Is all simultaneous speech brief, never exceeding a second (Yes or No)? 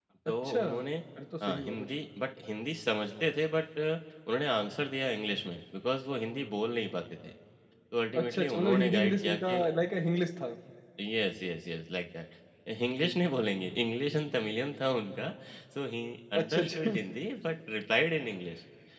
No